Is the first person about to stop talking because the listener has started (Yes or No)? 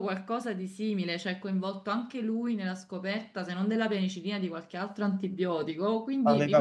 Yes